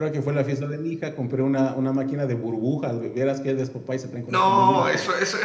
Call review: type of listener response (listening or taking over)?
taking over